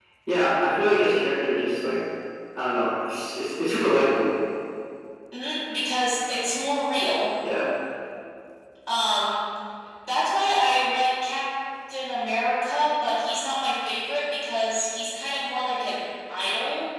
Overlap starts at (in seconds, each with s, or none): none